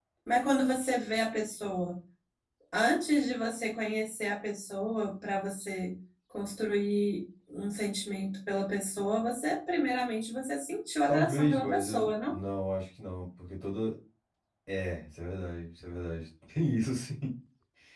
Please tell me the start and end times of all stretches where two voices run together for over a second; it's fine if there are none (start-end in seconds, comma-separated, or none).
11.1-12.4